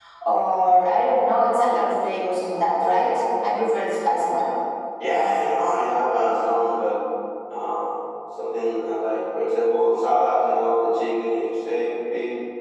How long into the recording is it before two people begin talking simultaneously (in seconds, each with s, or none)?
none